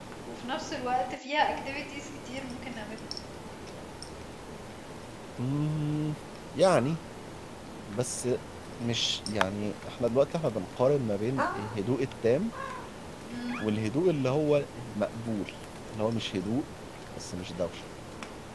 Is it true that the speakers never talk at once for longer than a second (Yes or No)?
Yes